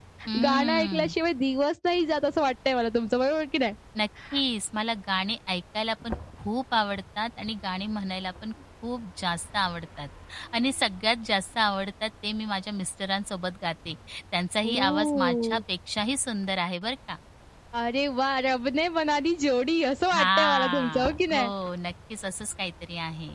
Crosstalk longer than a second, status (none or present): present